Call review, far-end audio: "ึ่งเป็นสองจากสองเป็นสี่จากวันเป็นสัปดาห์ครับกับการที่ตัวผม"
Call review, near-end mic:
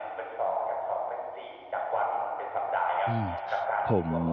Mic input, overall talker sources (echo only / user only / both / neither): both